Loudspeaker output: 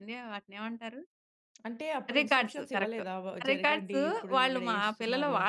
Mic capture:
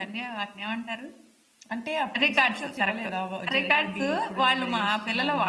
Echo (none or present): present